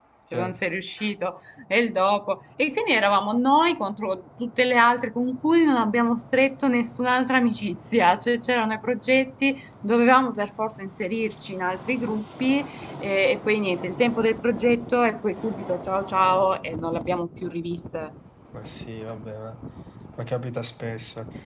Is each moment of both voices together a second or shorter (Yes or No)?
Yes